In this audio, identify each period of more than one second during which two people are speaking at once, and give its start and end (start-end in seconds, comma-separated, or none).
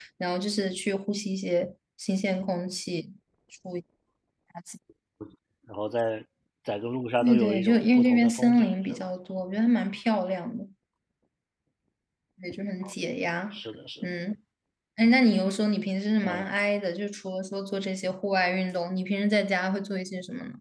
7.2-9.1